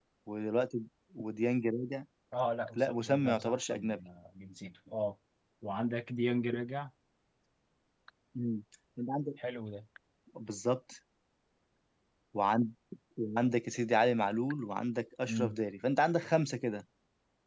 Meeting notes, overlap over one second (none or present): present